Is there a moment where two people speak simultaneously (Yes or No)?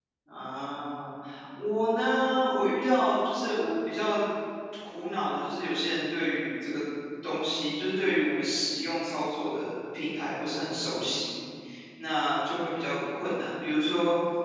No